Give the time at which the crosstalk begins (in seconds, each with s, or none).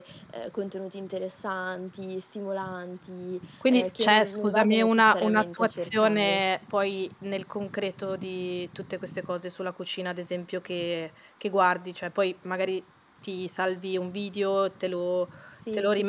3.7 s